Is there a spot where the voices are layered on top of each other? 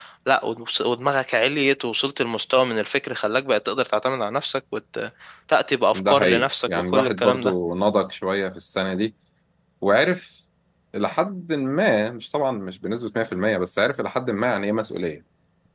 Yes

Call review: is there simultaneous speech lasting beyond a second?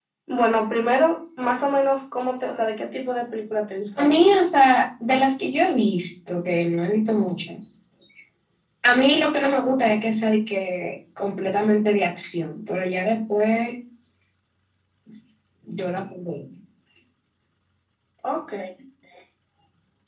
No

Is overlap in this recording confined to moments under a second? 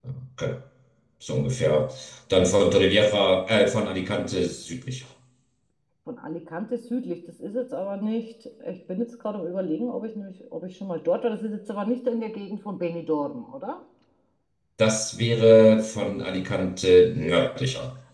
Yes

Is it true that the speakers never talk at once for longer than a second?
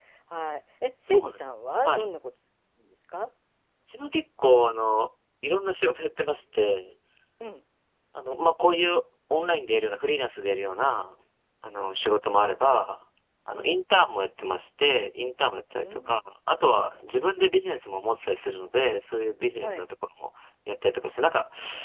Yes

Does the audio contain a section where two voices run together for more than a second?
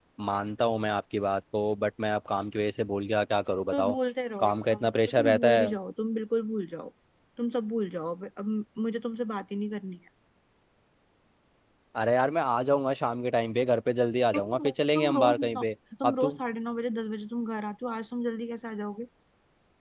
Yes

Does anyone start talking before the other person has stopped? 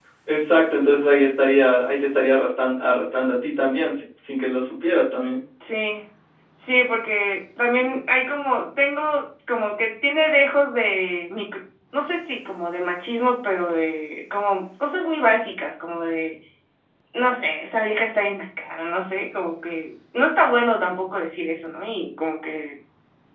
No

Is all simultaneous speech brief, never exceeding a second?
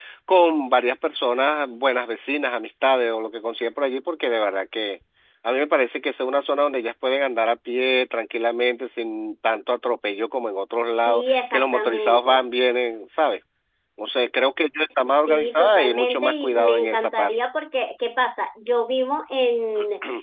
No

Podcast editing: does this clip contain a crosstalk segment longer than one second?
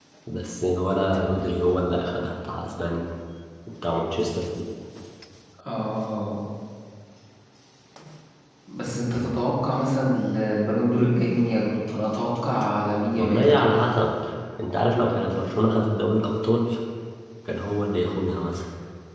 No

